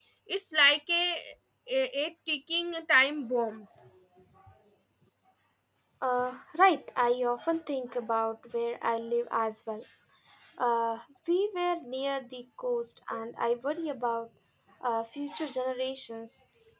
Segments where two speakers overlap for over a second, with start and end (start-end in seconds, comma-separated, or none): none